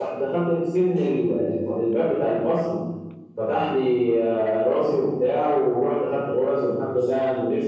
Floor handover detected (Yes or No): No